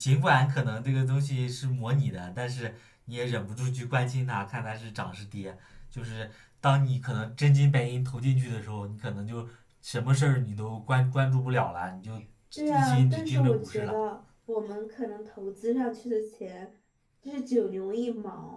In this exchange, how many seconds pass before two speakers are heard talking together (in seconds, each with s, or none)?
12.7 s